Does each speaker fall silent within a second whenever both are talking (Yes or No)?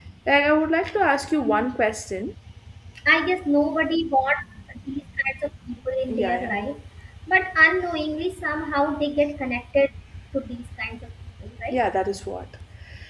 Yes